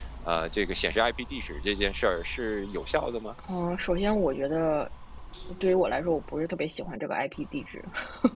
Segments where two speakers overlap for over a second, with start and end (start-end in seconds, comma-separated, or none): none